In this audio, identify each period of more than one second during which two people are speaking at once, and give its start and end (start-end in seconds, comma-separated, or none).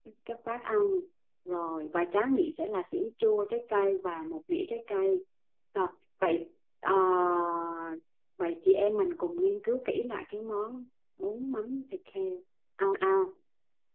none